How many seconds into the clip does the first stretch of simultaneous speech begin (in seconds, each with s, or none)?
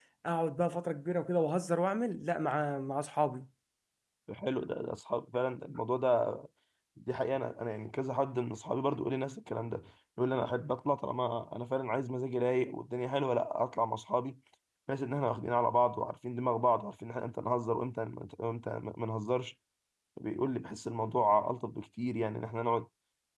none